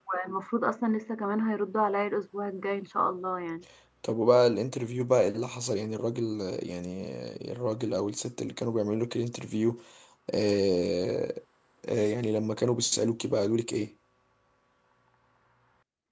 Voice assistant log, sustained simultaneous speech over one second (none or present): none